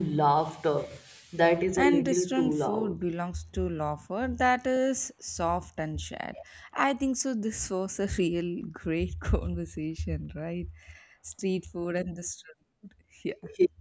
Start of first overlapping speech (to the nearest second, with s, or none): 2 s